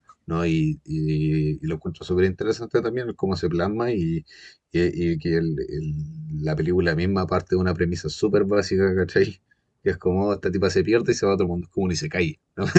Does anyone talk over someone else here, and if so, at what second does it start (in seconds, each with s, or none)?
none